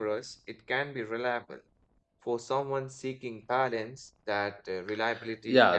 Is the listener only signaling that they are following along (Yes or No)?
No